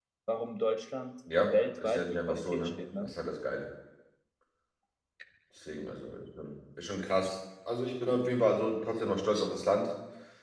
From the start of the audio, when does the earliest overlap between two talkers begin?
1 s

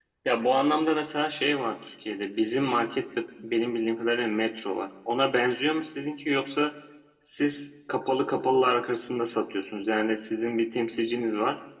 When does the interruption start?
none

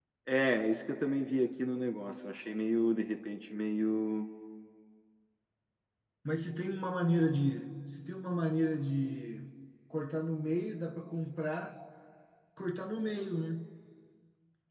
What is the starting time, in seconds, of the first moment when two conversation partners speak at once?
none

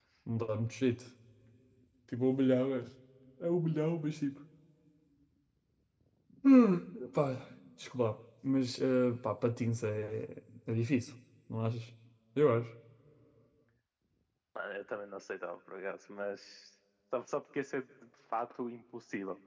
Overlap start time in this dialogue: none

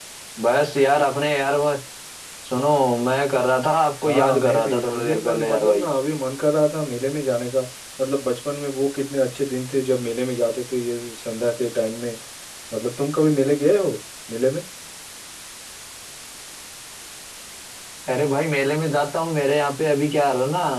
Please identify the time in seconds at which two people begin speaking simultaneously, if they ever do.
4 s

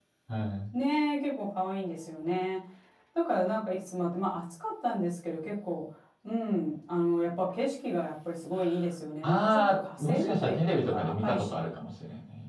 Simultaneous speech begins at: 9 s

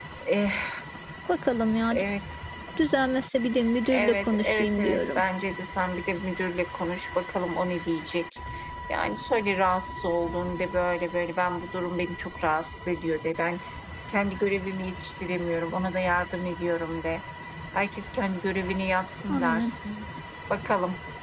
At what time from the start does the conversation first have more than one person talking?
4 s

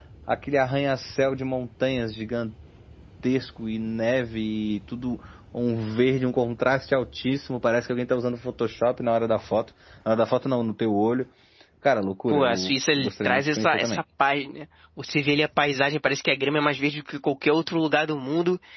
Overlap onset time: 12 s

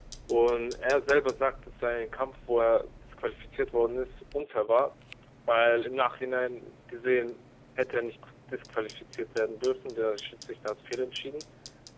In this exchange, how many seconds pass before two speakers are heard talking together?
none

